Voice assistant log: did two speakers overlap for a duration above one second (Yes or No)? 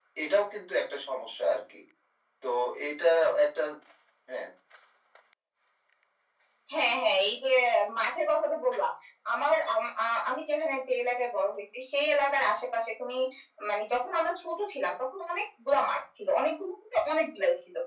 No